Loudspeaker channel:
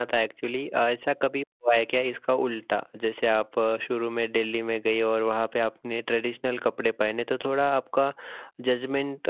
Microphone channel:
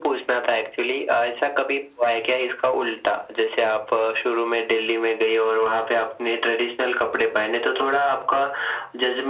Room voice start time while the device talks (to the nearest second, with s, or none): none